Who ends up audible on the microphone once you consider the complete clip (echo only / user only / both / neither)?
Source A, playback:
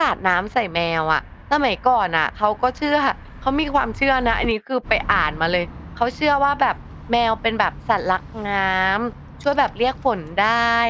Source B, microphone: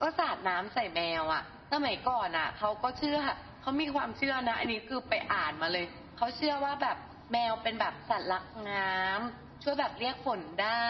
echo only